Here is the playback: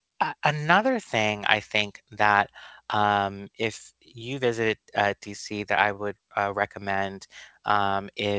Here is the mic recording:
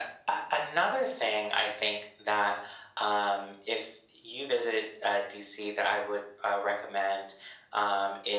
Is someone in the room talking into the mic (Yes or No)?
No